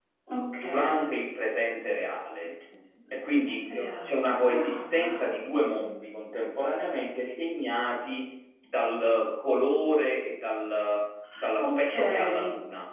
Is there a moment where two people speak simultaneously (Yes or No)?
Yes